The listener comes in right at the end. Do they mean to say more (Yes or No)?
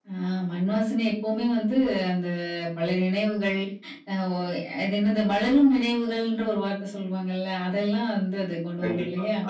Yes